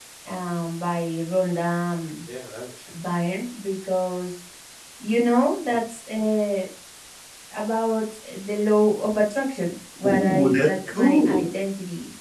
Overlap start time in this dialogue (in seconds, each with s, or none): 10.0 s